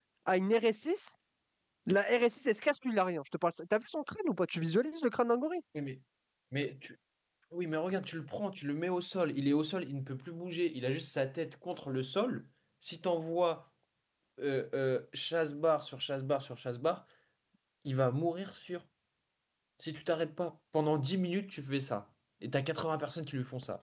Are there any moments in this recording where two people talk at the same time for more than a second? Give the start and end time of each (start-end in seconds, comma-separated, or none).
none